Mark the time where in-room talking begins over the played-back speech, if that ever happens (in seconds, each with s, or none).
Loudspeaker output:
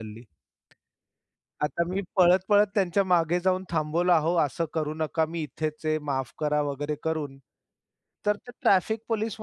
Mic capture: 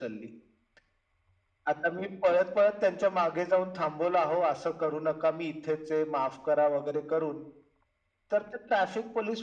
none